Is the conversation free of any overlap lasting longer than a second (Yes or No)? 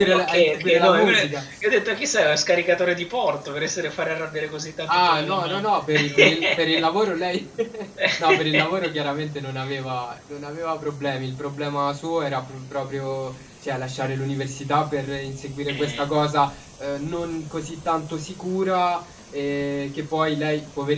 No